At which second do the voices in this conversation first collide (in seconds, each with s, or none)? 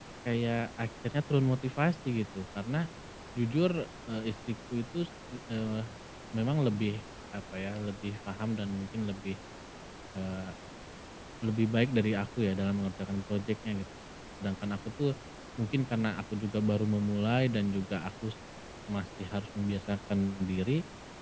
none